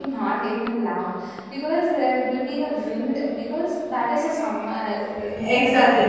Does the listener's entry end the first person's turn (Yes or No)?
Yes